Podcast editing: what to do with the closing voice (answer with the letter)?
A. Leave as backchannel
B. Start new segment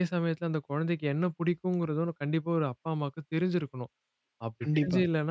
A